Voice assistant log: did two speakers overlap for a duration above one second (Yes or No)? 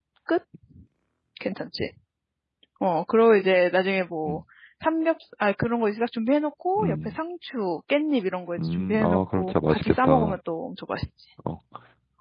Yes